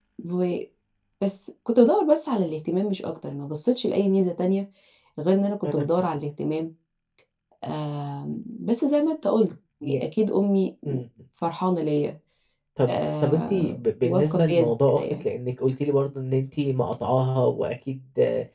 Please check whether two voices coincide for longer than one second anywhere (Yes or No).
Yes